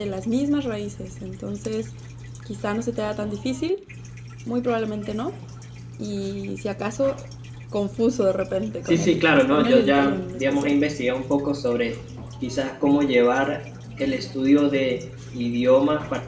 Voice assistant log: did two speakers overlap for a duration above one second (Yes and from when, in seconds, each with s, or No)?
Yes, from 8.8 s